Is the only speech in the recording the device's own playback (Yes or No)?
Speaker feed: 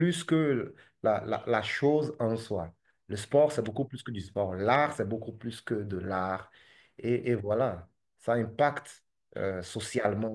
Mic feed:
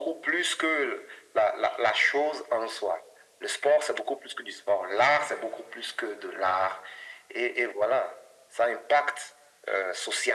Yes